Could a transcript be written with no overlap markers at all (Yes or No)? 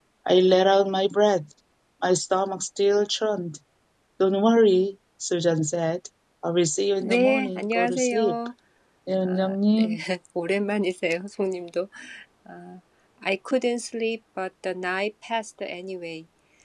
No